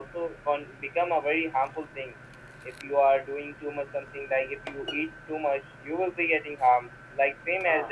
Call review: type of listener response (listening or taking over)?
listening